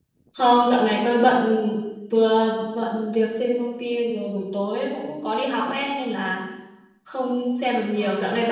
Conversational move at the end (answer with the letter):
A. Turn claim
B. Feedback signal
B